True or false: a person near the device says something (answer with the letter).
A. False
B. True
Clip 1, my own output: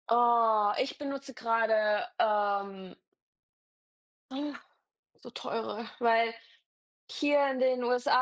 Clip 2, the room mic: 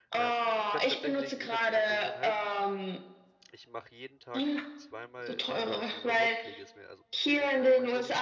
B